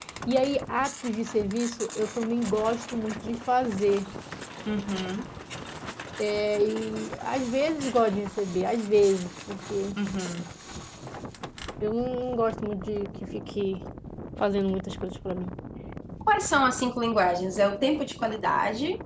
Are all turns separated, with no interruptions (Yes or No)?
Yes